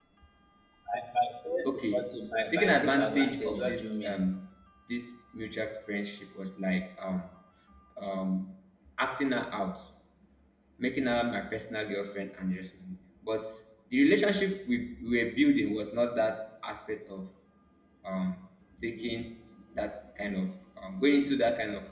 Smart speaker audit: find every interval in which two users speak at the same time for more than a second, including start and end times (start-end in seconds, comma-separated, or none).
2.5-4.2